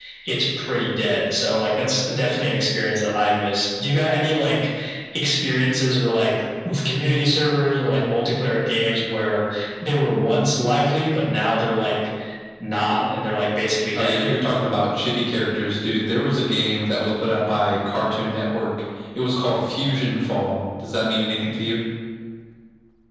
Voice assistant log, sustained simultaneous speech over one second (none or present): none